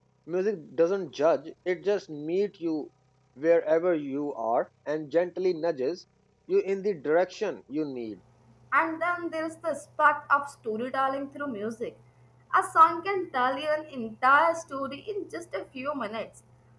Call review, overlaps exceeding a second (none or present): none